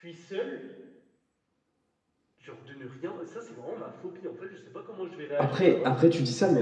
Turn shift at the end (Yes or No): Yes